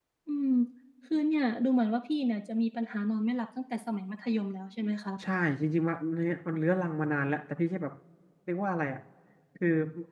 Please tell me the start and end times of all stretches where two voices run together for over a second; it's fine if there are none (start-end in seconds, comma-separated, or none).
none